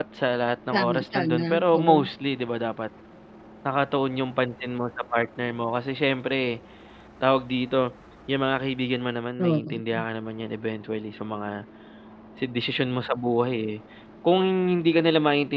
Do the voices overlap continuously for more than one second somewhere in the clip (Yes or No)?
Yes